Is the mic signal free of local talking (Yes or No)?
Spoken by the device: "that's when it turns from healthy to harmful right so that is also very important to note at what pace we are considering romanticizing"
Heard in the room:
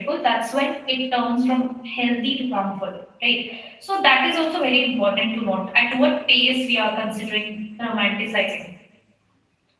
Yes